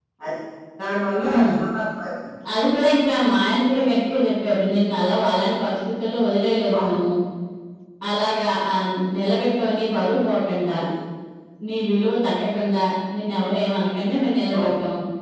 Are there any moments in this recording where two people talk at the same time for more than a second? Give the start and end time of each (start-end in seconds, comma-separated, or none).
none